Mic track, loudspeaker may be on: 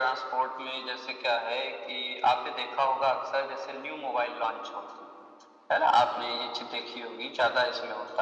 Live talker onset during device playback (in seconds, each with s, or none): none